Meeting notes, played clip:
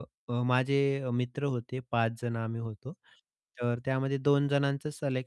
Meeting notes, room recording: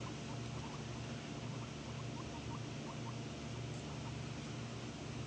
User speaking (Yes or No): No